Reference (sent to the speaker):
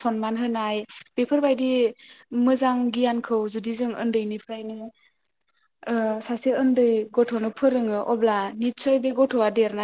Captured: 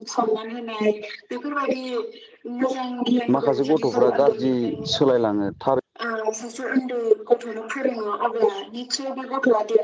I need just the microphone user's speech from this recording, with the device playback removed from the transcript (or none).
माखासे गथ'फ्रा गाज्रि सोलायलाङो। थार